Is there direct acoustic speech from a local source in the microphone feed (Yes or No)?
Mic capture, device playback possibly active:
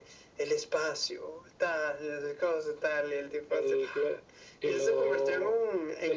No